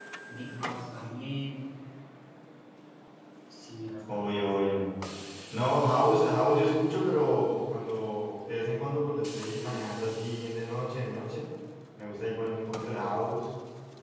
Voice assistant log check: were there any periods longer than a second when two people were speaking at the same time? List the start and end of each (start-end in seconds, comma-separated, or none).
none